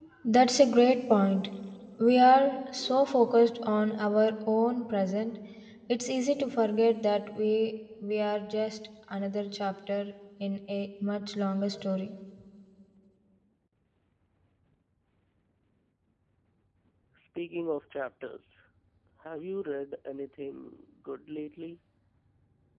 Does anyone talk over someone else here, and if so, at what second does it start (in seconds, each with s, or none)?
none